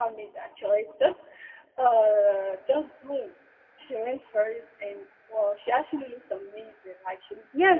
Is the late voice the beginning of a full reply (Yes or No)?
Yes